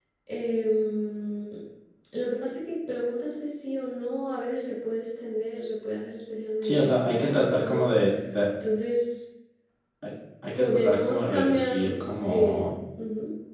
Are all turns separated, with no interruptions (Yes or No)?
No